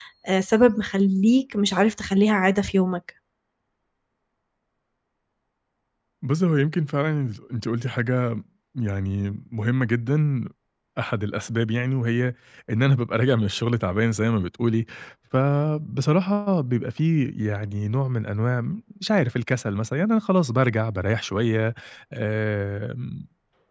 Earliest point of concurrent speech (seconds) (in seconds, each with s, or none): none